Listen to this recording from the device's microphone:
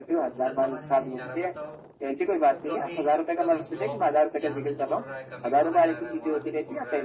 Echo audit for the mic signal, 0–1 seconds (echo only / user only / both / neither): both